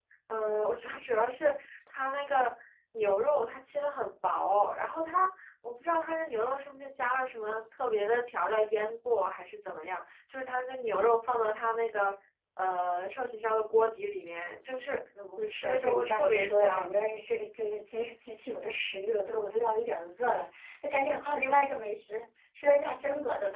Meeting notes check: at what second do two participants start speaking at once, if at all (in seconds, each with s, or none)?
15.4 s